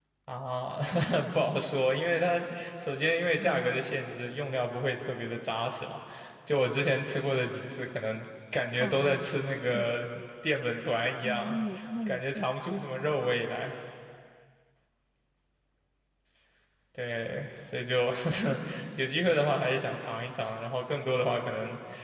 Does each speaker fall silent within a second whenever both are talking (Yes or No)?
Yes